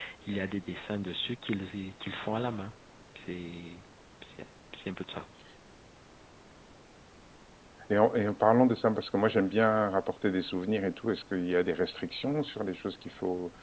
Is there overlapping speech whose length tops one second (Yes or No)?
No